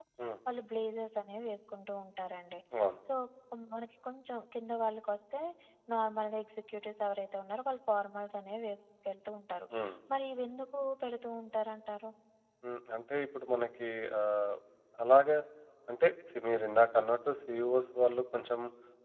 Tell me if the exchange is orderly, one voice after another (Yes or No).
Yes